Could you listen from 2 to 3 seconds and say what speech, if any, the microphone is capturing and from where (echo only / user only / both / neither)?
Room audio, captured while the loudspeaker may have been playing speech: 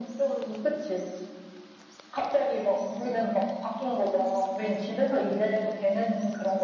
echo only